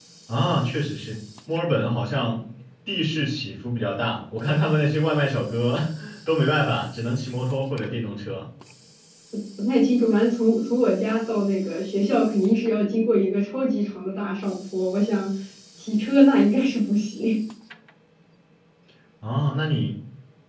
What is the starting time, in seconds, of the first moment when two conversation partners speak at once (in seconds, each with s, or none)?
none